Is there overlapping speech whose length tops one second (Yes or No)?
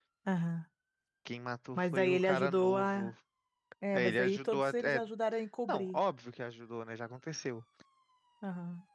Yes